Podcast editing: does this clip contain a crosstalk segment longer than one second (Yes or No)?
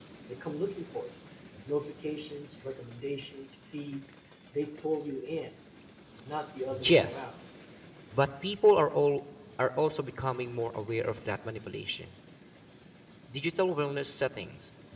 No